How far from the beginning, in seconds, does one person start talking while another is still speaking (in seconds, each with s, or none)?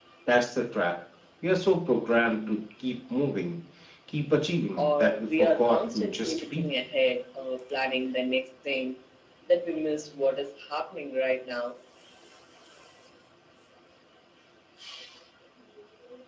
4.8 s